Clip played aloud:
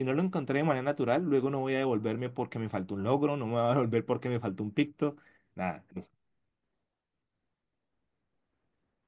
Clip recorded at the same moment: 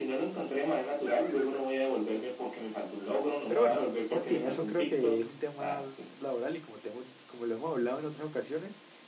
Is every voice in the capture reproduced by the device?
No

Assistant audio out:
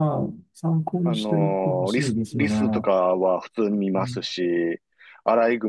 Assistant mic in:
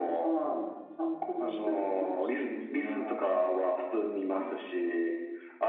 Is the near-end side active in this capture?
No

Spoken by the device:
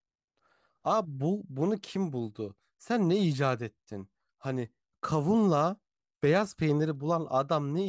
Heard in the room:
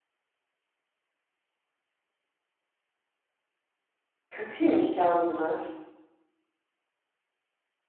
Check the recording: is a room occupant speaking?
Yes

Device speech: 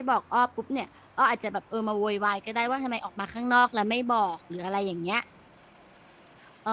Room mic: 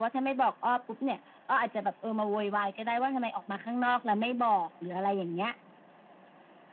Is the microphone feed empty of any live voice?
Yes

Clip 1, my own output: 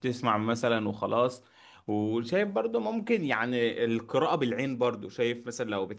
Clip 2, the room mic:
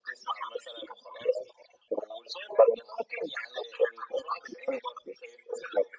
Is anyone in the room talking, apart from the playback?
No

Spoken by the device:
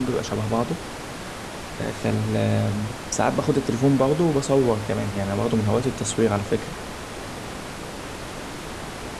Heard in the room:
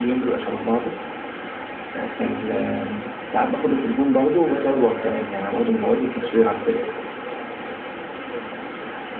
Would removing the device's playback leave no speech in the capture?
No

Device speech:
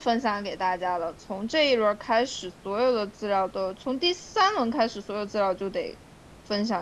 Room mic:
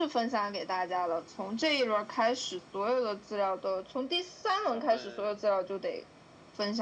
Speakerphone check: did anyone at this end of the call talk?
Yes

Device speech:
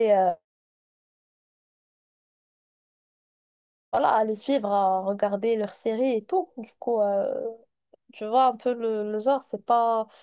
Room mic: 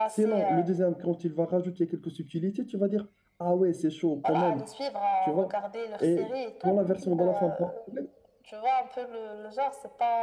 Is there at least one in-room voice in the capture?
Yes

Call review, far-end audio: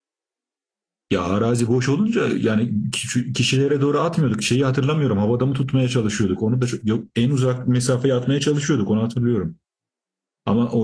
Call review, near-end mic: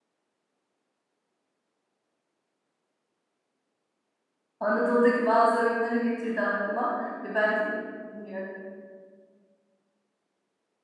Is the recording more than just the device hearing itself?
Yes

